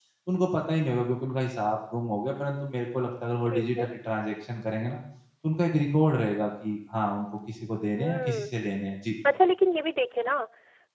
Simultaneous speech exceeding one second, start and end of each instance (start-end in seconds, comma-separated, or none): none